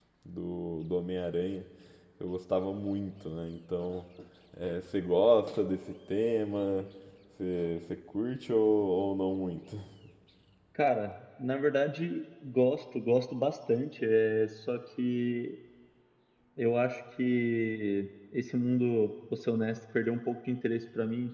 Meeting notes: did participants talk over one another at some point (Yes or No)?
No